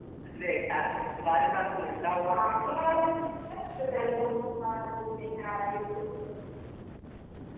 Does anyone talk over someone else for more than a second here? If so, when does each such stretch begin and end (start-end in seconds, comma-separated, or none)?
none